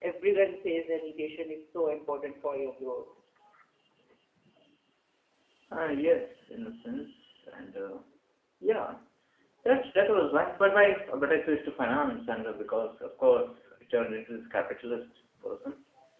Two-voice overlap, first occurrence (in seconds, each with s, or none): none